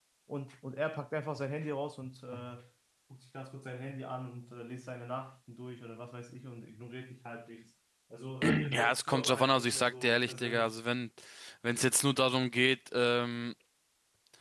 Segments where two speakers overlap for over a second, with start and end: 8.7-10.7

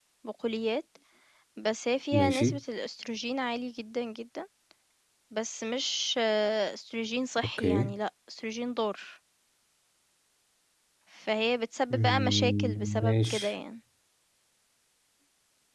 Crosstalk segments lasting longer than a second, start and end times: 11.9-13.5

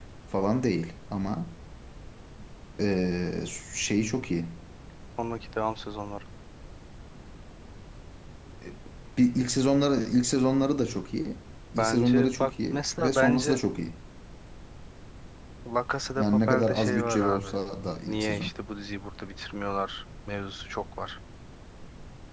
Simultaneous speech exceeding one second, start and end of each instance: 11.8-13.6, 16.2-17.6

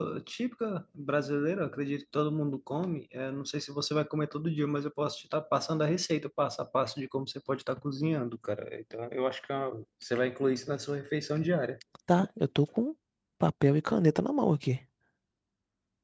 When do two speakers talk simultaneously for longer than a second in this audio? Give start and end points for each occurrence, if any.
none

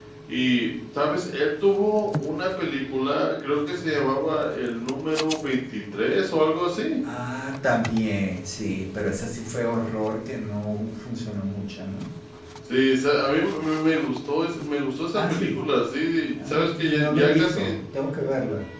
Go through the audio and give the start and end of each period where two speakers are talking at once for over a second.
16.3-17.7

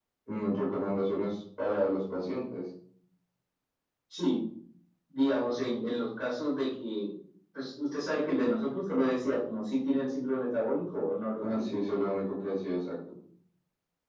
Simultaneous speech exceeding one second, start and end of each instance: none

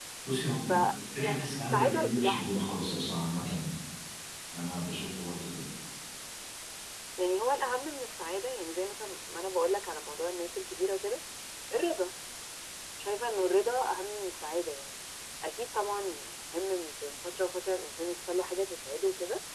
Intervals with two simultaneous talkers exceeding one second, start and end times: 1.2-2.7

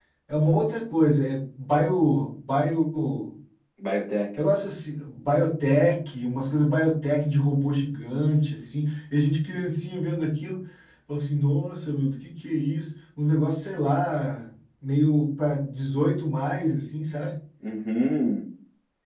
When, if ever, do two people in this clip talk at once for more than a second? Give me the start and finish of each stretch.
none

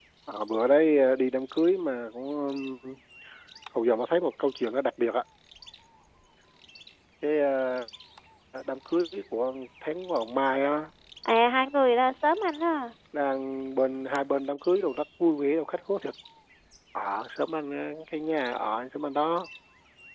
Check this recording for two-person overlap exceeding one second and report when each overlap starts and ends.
none

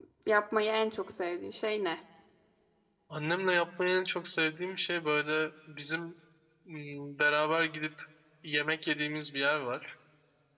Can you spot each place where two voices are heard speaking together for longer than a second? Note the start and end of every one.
none

